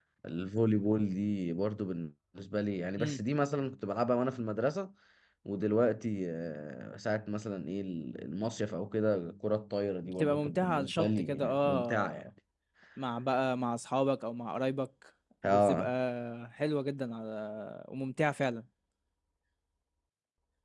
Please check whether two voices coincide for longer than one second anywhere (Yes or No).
Yes